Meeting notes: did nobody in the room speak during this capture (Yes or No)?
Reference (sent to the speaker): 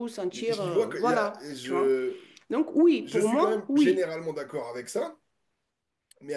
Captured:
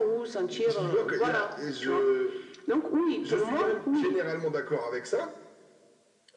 Yes